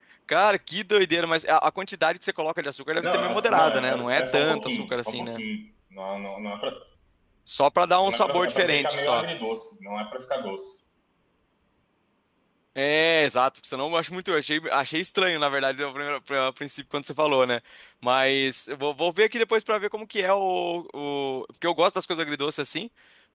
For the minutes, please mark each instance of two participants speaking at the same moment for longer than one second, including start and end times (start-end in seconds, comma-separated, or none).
3.0-5.4, 8.0-9.2